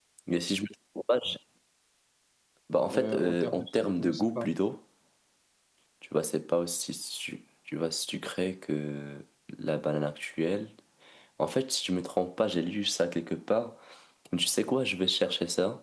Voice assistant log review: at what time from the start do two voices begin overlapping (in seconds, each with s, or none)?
2.9 s